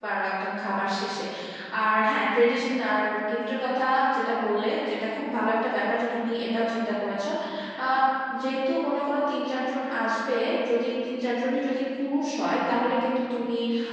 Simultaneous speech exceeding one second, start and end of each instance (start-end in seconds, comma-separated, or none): none